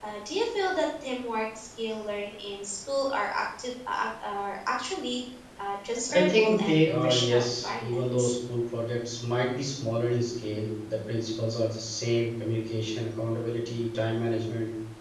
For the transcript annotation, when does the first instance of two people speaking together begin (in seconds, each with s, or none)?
6.1 s